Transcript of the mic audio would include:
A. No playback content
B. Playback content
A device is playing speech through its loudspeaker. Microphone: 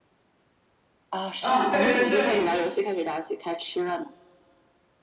B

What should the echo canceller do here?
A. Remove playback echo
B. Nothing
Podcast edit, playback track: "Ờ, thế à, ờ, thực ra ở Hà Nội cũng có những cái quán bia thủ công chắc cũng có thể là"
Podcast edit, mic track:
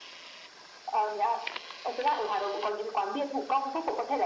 A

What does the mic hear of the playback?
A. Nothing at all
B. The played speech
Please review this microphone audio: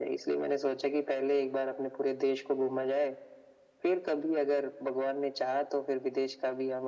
B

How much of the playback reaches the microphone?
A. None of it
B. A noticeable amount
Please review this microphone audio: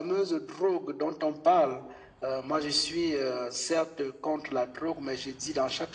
B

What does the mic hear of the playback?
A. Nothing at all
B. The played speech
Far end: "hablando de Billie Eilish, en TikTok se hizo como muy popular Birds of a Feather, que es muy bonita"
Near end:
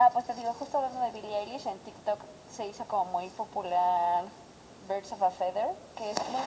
B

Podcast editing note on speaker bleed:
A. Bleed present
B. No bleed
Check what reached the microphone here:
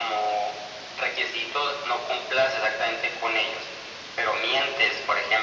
A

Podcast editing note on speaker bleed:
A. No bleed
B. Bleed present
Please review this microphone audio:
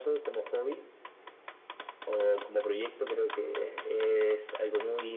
B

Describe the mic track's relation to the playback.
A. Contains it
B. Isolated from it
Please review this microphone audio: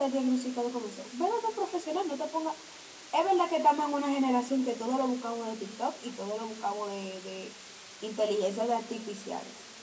A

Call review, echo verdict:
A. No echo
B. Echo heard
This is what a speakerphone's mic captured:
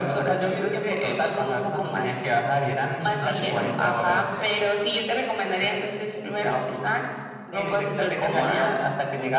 B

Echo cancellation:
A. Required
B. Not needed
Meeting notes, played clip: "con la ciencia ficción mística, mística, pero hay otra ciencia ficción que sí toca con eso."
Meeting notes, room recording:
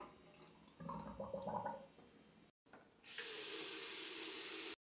B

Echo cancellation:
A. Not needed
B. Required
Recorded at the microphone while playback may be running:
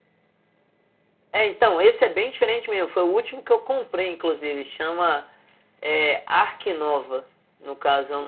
B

